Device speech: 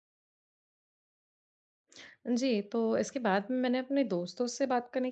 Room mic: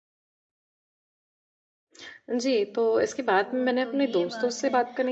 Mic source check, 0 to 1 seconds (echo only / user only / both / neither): neither